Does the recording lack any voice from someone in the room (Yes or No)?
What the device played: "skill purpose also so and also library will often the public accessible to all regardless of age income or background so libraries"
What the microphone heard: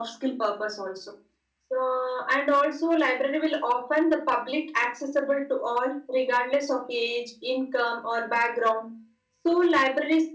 Yes